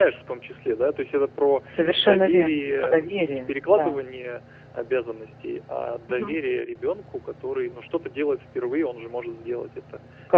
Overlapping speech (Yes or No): Yes